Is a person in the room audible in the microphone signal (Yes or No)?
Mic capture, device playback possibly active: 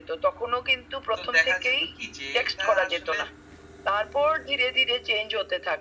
Yes